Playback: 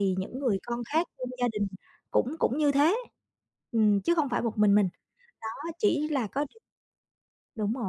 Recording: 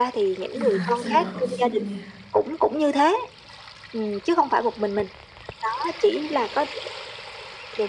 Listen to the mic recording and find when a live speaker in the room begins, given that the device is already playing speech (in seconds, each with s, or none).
0.5 s